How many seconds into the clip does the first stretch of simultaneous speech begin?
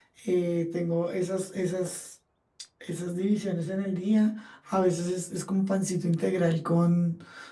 none

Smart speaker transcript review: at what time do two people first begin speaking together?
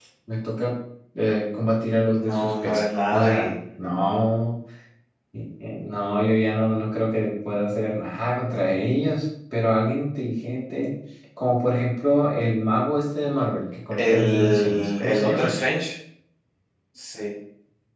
2.1 s

